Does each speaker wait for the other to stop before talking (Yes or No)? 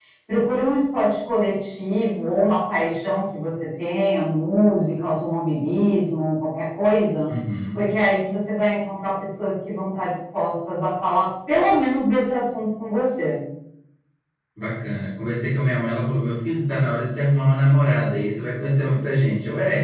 Yes